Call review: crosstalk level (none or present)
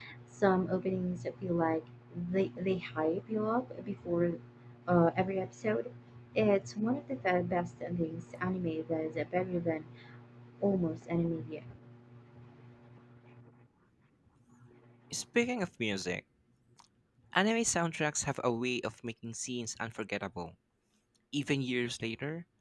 none